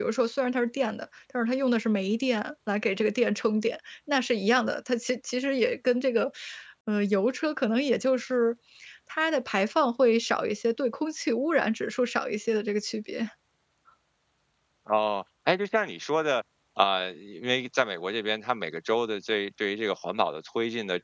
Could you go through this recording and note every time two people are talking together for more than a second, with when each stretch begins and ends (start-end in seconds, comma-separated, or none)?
none